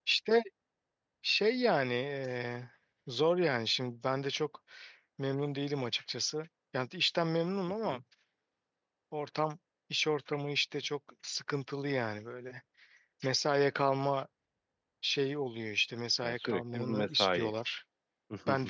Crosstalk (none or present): present